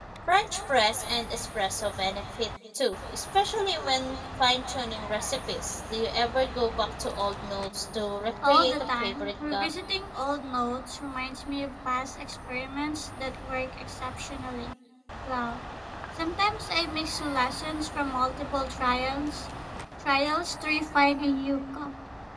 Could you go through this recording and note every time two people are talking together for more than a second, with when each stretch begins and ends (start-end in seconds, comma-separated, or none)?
8.4-9.7